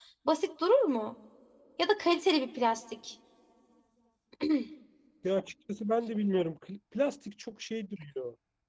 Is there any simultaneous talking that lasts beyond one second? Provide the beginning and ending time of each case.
none

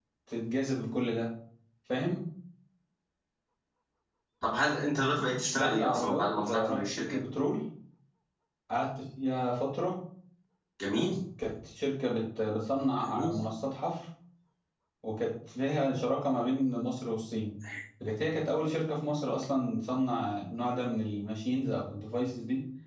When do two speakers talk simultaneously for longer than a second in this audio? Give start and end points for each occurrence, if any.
5.5-7.2

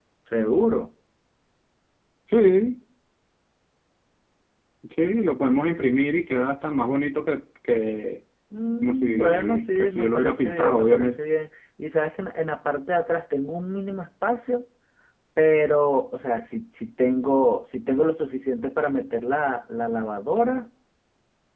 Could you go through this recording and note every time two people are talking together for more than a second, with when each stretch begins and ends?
8.8-11.2

